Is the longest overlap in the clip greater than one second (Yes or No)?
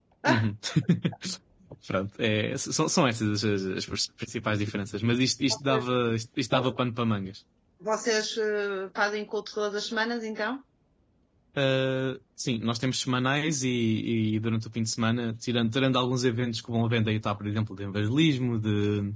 No